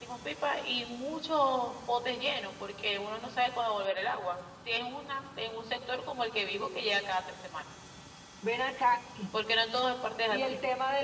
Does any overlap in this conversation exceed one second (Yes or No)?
No